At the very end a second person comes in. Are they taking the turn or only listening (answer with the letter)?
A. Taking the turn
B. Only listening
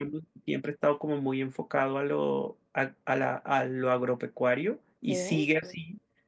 B